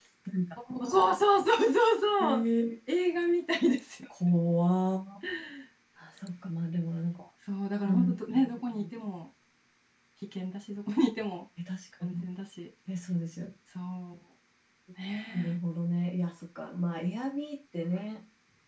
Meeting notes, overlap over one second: none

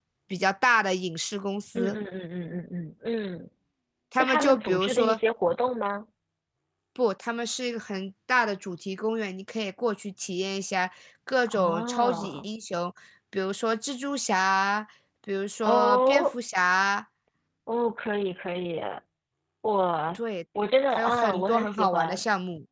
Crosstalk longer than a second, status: present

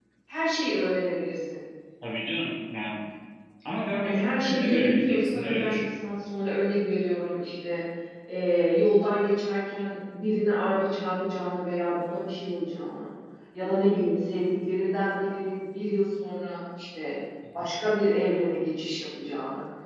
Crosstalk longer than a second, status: present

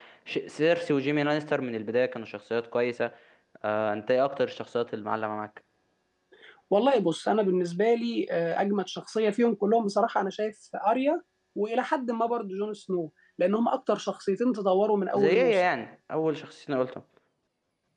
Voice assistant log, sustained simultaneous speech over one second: none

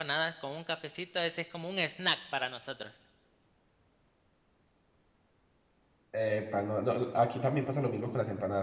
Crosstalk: none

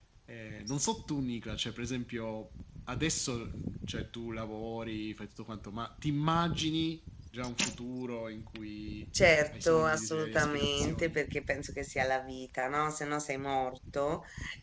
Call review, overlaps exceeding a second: present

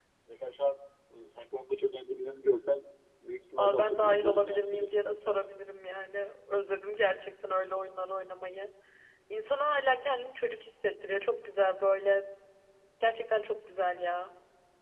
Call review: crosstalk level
present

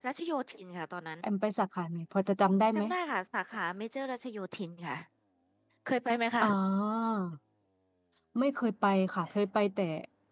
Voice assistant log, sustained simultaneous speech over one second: none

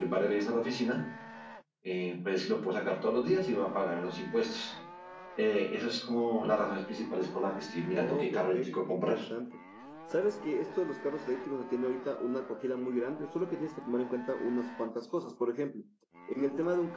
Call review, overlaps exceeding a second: present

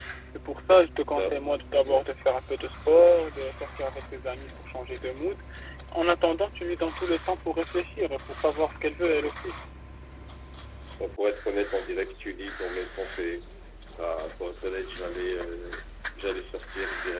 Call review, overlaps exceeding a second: none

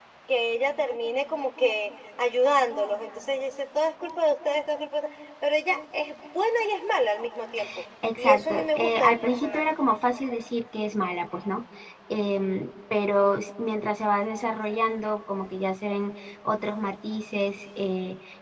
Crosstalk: present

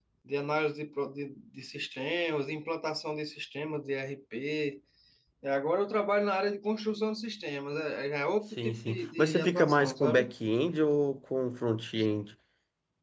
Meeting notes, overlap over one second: present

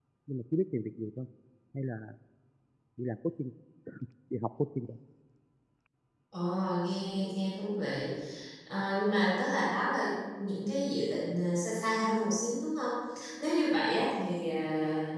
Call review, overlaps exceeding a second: none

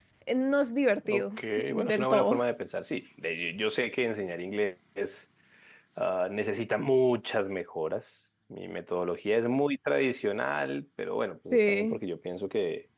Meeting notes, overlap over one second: present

